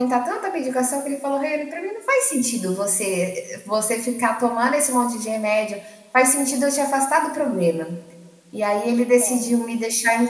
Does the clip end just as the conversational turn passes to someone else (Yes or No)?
No